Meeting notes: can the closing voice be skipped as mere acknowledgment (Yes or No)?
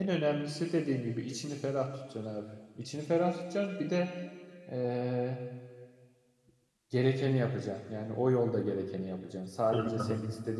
Yes